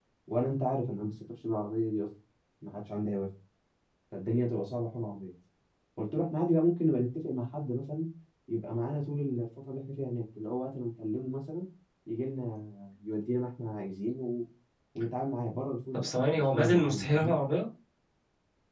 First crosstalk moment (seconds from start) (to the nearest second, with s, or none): 16 s